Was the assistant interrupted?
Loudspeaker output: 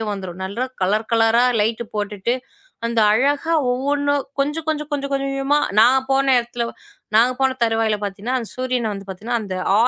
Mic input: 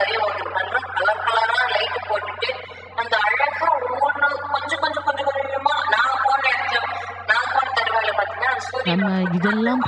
Yes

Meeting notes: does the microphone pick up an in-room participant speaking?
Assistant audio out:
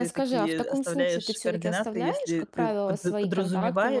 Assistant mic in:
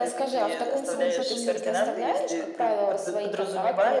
Yes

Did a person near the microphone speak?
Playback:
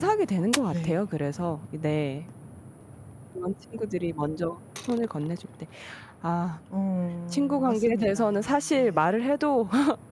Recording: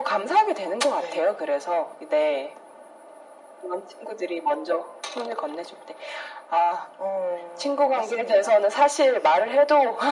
No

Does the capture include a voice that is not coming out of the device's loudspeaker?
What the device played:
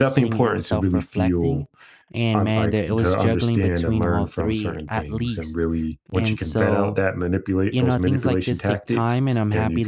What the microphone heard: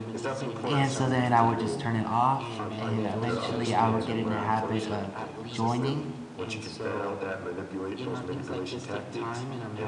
Yes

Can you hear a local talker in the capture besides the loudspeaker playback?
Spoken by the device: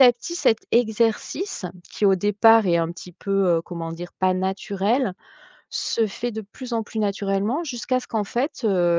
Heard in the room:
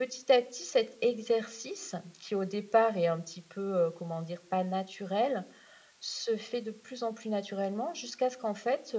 No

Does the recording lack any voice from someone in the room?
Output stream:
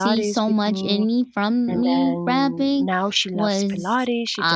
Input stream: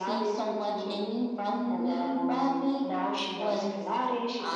Yes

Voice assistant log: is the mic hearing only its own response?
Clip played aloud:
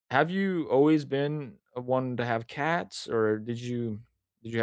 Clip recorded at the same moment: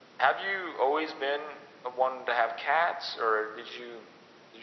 Yes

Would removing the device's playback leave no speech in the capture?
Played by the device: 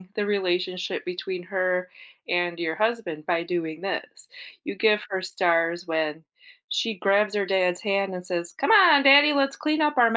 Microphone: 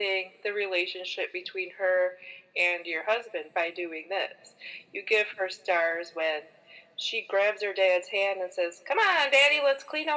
Yes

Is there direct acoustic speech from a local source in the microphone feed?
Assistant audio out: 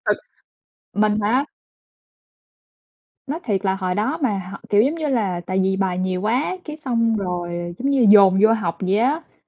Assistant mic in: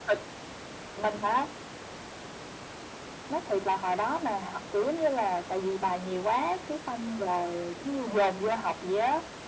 No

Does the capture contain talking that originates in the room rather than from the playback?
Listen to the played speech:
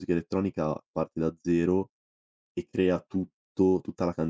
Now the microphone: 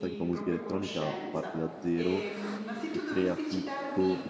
Yes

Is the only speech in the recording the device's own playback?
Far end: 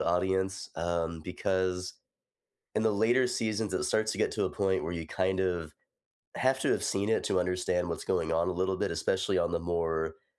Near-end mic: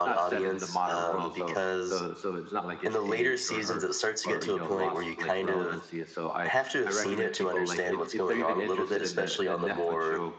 No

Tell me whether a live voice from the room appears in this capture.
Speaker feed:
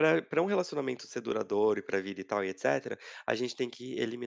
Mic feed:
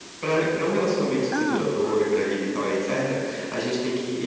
Yes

